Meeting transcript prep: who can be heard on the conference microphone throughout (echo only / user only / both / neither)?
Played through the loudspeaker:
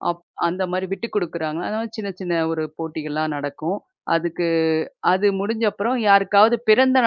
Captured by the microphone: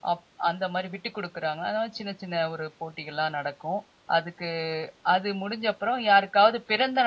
echo only